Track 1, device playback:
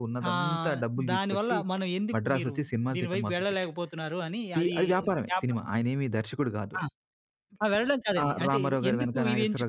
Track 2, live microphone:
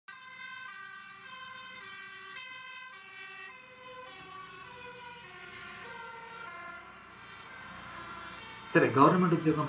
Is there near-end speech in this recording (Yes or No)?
Yes